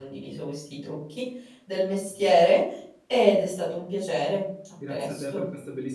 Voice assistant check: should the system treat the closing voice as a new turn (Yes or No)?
Yes